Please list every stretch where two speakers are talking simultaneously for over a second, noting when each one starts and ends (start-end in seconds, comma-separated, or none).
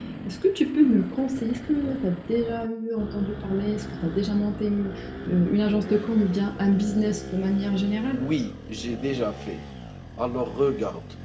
none